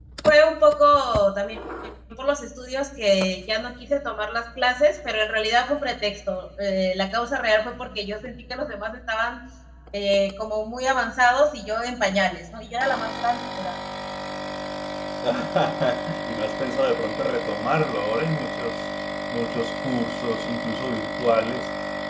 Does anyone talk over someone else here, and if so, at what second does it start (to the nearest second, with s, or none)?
none